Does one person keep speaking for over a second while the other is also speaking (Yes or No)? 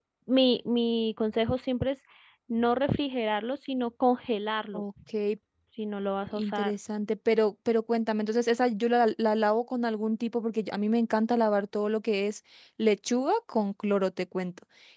No